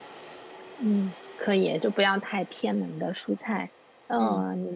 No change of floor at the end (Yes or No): Yes